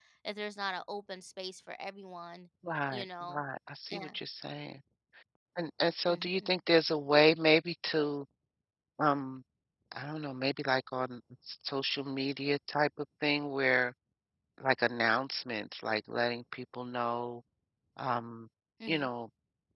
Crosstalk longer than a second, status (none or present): none